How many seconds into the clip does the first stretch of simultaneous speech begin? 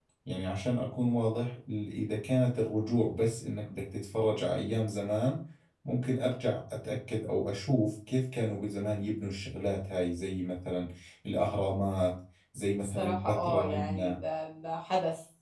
12.8 s

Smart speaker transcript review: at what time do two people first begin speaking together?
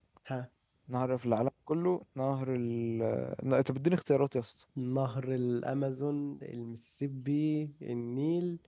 none

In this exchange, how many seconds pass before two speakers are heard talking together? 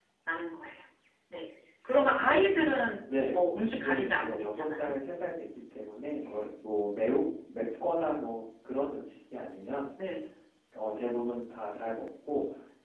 3.1 s

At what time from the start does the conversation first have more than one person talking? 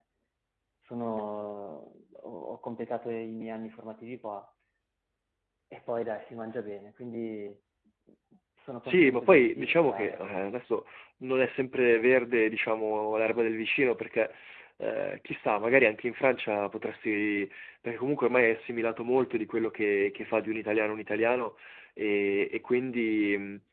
8.8 s

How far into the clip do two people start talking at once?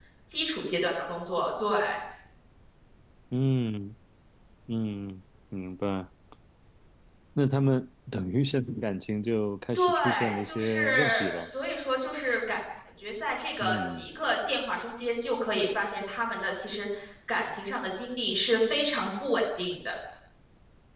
9.8 s

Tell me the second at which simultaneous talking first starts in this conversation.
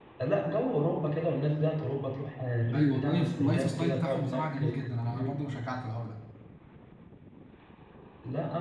2.7 s

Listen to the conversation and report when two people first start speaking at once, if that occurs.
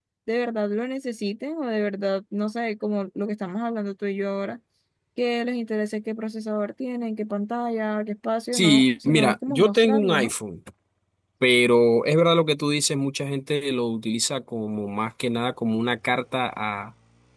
8.5 s

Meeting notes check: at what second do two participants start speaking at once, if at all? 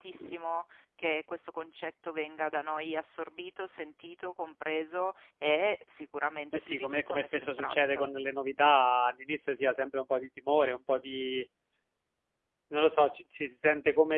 6.5 s

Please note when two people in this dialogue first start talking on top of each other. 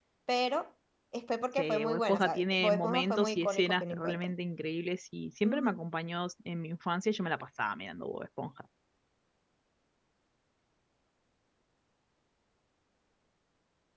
1.6 s

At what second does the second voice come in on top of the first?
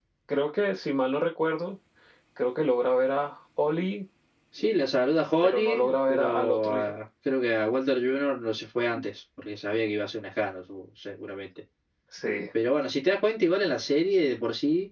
5.4 s

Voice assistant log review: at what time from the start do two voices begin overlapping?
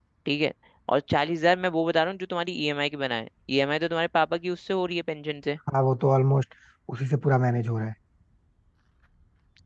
none

